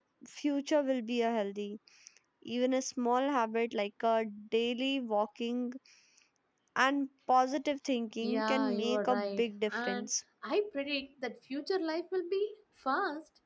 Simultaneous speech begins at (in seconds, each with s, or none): 8.2 s